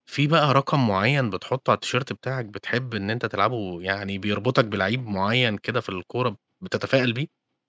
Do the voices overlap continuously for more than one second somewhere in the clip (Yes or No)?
No